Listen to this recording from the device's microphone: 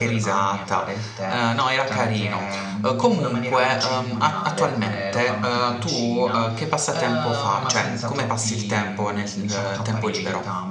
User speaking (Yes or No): Yes